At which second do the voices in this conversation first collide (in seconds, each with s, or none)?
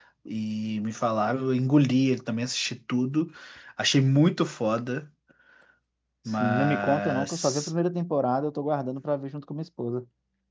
6.3 s